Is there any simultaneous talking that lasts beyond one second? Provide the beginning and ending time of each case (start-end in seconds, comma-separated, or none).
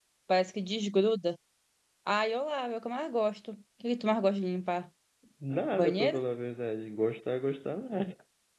none